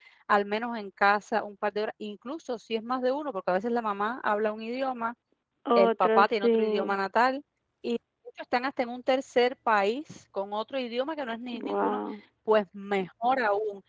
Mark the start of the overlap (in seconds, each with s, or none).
5.8 s